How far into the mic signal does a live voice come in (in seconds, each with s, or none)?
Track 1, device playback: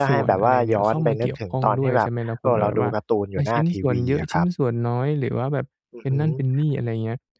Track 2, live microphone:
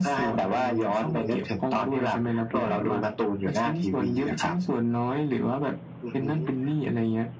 none